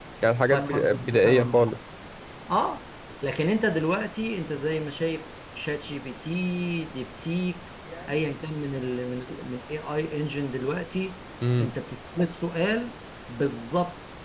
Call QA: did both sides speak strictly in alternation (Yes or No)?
No